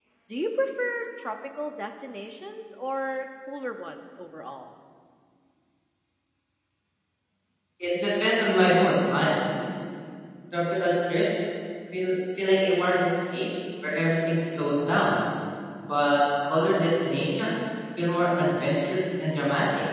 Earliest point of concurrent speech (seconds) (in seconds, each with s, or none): none